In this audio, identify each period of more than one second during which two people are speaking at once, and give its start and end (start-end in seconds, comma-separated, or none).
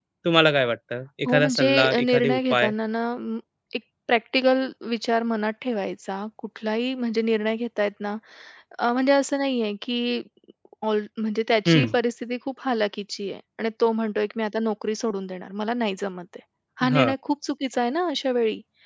1.3-2.7